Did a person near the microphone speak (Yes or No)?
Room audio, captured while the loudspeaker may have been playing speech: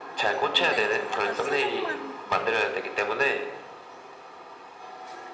Yes